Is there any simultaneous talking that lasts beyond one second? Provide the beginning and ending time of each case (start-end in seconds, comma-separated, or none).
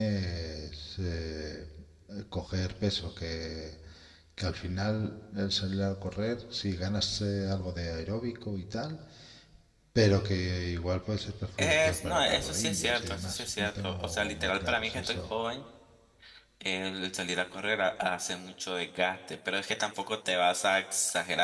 11.6-15.2